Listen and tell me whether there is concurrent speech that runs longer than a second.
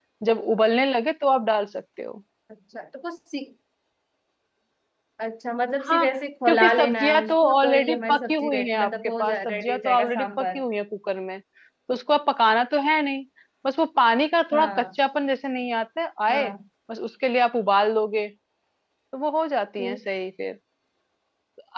Yes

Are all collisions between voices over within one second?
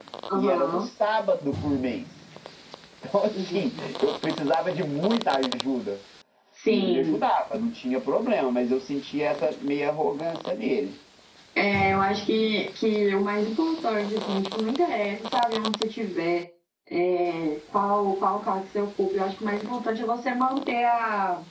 Yes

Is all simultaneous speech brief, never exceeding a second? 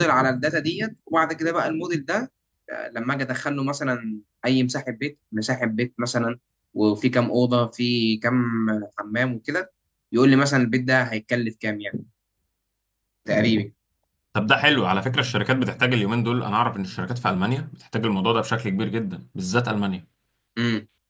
Yes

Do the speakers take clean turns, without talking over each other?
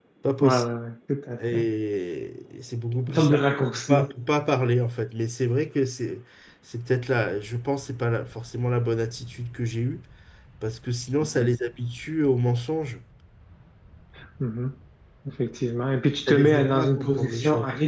No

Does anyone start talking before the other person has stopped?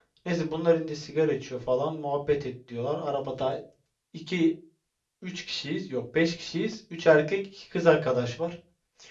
No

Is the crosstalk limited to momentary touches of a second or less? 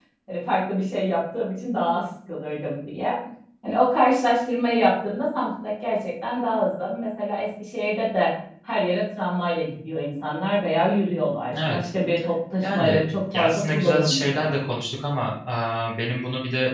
No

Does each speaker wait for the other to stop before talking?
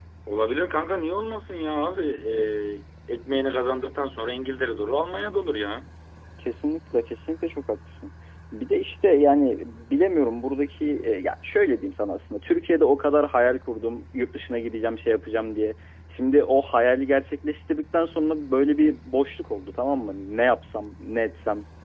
Yes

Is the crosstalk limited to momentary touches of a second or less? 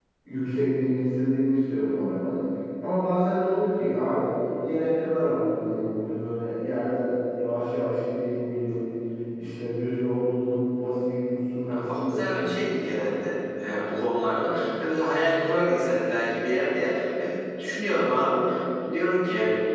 No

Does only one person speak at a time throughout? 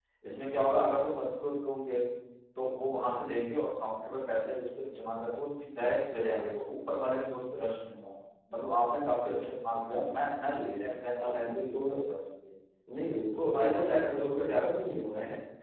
No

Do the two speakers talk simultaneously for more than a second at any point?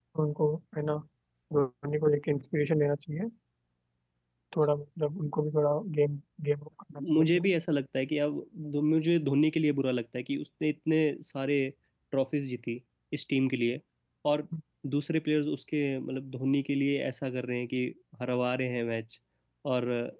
No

